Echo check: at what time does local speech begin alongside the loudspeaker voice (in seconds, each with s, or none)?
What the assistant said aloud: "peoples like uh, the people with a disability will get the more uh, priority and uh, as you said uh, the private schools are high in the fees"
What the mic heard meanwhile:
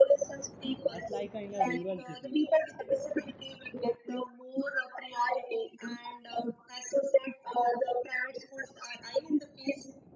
0.9 s